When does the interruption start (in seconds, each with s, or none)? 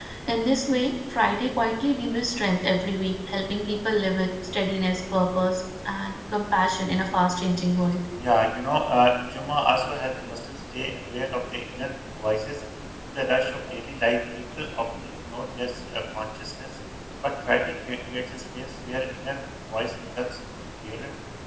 none